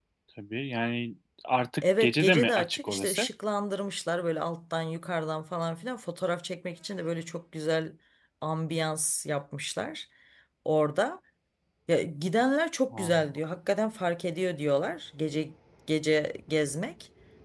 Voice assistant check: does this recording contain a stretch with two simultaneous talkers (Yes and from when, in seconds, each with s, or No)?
Yes, from 1.8 s